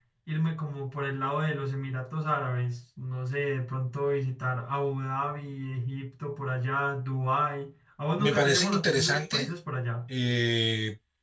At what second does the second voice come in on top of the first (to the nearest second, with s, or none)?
8 s